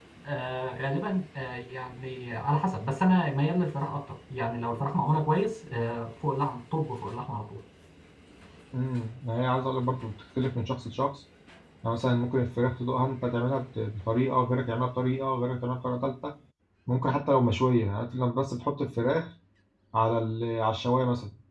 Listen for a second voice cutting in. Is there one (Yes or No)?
No